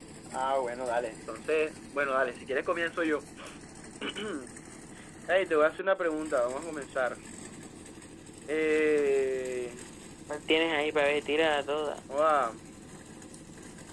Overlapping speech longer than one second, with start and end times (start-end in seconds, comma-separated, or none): none